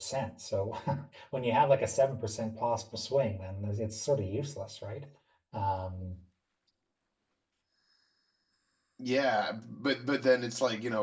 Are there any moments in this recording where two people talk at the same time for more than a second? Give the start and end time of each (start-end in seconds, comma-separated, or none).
none